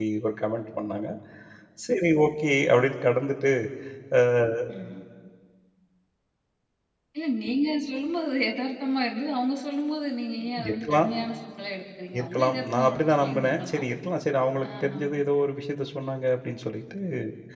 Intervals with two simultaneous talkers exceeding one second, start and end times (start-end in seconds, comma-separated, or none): 12.2-13.9